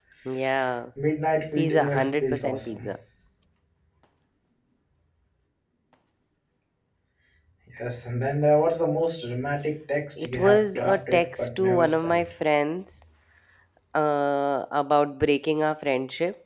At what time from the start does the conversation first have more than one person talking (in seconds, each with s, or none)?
1.6 s